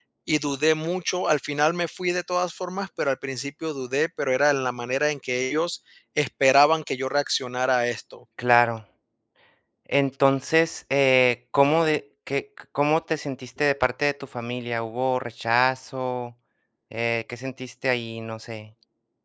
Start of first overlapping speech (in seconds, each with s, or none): none